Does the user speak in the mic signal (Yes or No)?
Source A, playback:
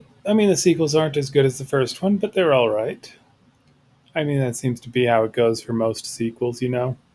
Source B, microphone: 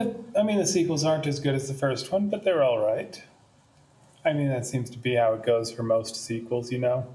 No